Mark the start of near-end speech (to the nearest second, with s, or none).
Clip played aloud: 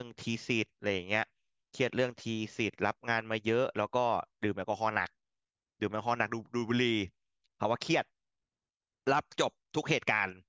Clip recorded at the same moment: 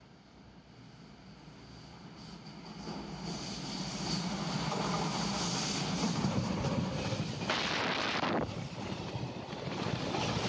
none